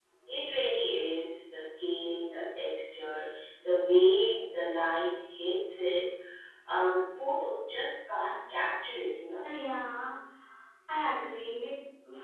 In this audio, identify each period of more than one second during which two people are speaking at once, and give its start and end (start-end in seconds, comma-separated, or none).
none